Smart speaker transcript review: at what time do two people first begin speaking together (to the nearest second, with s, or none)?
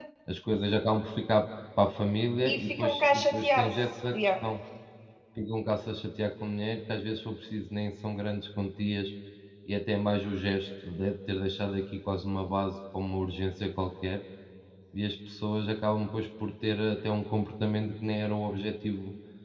2 s